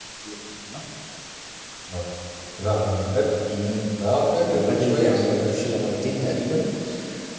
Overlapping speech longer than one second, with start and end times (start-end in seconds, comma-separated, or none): 4.4-5.9